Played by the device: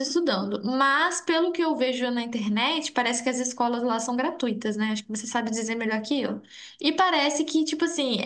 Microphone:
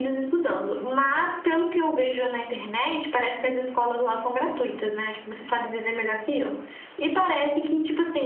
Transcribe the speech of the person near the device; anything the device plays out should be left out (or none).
none